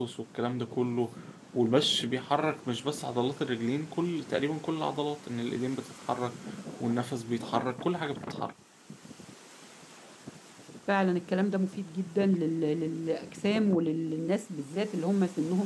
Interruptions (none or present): none